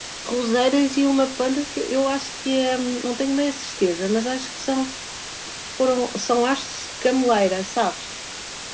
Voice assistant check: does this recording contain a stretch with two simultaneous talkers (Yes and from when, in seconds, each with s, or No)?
No